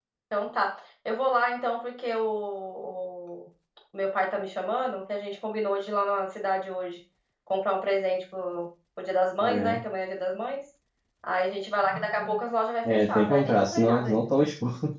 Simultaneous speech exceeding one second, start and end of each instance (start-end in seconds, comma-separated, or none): 12.8-14.3